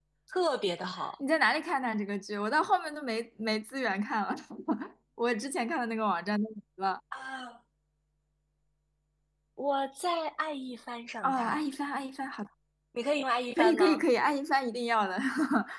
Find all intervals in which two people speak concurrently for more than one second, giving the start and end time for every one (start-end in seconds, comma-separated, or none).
none